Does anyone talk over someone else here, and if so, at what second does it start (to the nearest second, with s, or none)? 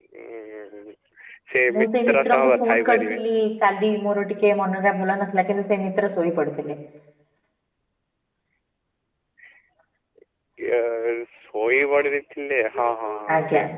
2 s